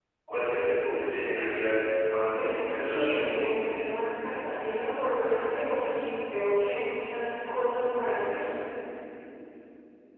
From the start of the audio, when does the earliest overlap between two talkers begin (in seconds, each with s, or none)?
2.3 s